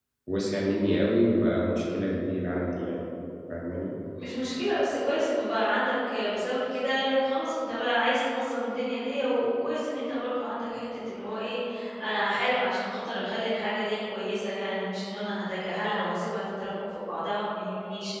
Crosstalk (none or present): none